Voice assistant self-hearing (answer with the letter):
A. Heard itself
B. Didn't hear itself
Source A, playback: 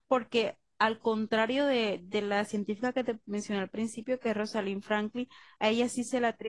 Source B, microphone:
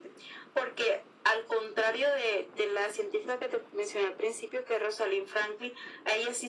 A